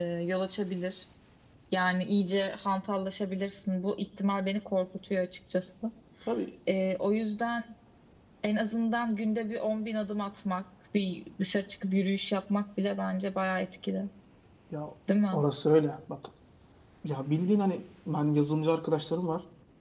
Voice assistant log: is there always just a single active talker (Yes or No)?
Yes